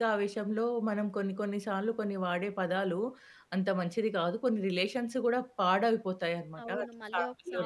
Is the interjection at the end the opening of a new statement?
Yes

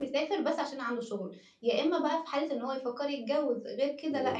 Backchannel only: Yes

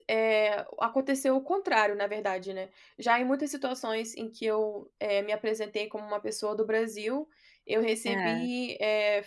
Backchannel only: Yes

